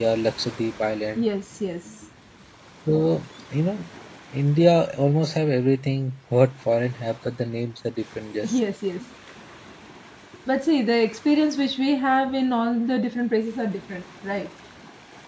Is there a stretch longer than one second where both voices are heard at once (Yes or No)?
No